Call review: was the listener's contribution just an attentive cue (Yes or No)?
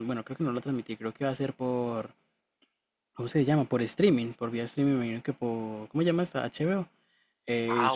No